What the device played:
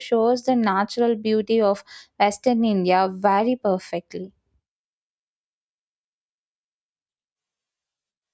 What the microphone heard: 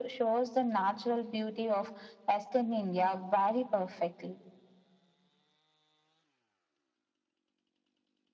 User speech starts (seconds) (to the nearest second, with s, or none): none